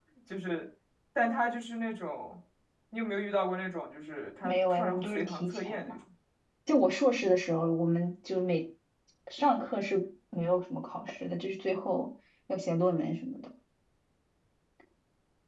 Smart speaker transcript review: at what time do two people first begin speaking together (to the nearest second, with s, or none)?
4 s